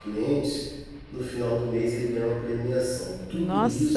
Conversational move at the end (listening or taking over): taking over